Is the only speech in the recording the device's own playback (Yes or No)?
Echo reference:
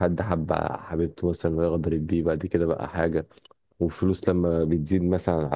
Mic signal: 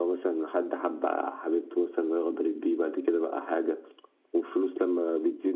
Yes